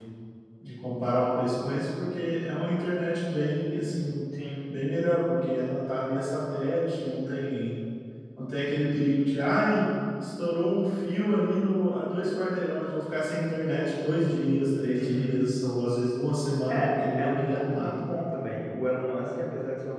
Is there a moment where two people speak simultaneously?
Yes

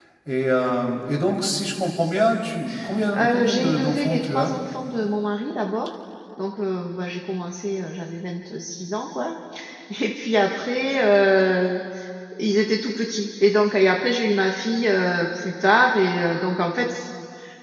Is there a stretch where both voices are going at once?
Yes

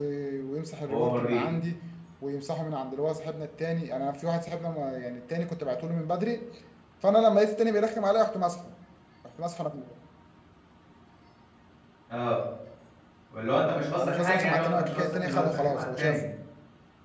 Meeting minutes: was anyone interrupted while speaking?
Yes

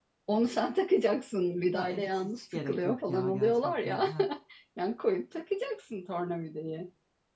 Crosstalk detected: Yes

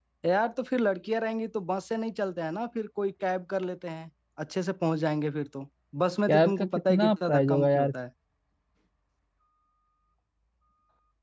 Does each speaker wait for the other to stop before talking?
No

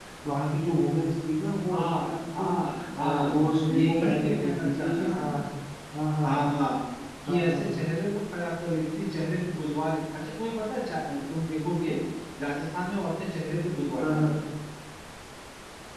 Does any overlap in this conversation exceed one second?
Yes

